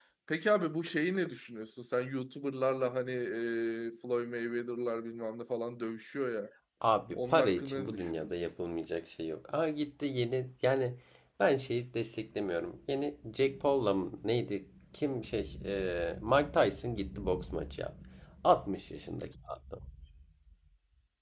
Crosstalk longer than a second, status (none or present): present